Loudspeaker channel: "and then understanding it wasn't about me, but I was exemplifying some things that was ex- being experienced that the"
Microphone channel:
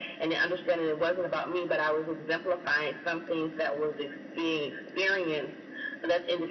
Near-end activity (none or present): none